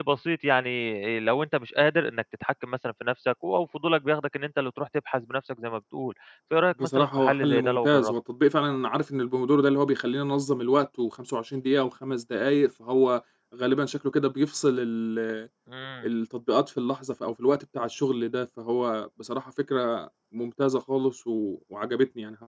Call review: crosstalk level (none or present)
present